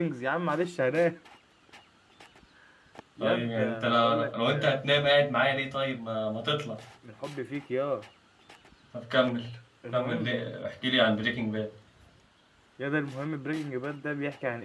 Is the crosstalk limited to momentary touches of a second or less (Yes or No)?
No